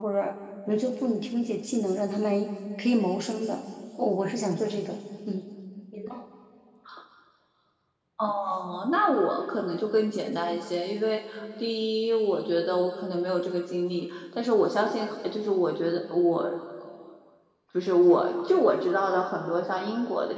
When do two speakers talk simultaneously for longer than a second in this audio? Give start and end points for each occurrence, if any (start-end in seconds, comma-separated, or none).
none